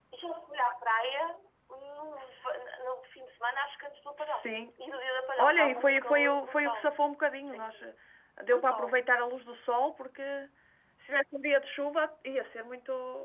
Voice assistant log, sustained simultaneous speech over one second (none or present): present